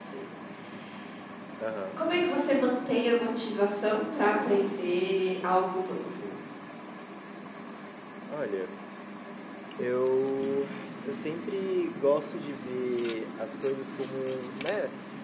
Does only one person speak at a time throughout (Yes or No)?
Yes